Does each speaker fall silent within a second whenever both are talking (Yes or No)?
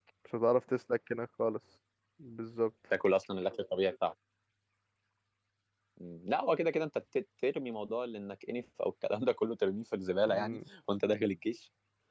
Yes